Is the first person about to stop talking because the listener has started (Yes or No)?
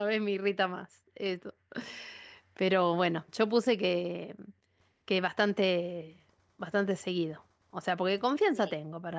No